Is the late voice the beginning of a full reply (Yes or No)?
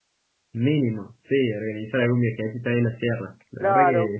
Yes